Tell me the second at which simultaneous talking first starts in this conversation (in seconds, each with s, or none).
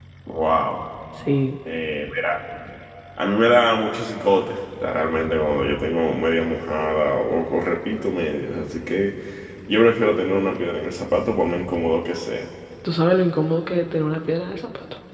none